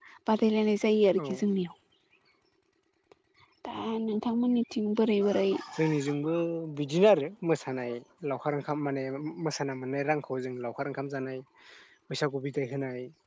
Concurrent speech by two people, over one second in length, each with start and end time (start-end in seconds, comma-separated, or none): none